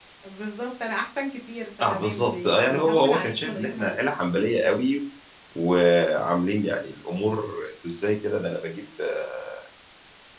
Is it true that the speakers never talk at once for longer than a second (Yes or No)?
No